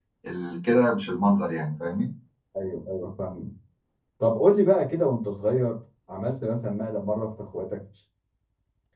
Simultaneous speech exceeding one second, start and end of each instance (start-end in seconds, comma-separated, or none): none